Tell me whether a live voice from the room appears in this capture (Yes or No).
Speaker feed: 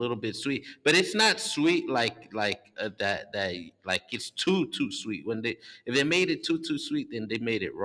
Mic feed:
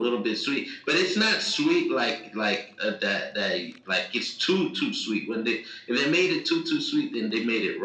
No